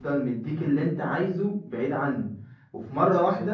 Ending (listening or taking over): listening